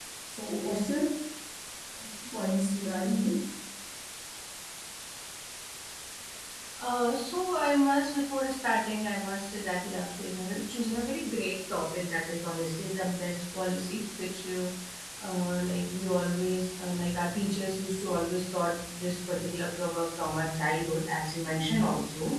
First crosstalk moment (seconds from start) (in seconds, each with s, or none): none